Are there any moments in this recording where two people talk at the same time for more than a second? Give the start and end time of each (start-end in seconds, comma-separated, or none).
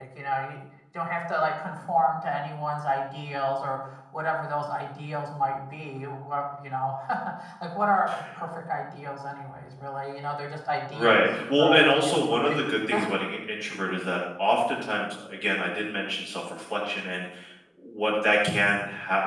10.9-12.6